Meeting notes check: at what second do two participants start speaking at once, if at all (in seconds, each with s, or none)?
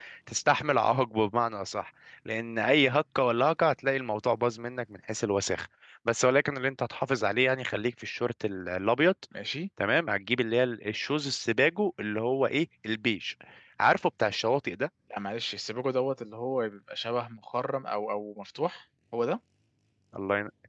none